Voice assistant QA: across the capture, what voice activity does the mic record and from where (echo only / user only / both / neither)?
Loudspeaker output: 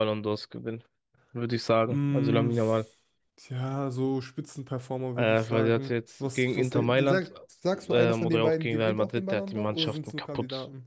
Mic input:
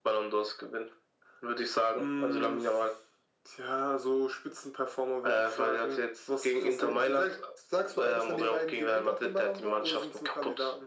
echo only